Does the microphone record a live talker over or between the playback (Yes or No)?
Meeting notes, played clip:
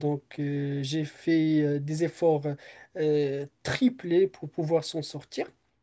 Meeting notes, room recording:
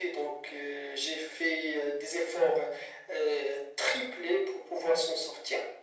No